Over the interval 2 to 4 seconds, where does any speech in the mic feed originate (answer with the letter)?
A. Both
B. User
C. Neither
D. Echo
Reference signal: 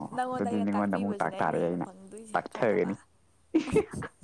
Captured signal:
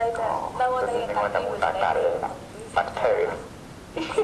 D